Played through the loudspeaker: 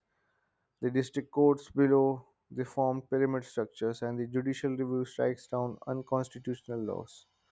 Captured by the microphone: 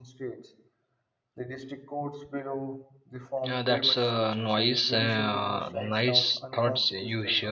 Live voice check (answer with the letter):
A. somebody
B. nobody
A